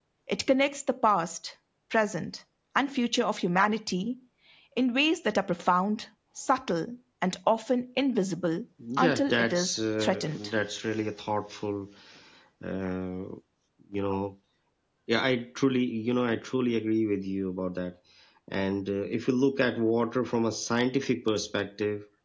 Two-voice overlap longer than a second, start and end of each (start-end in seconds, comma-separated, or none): 9.0-10.4